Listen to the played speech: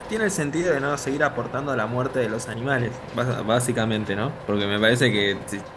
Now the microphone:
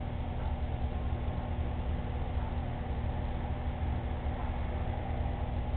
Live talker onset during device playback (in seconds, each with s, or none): none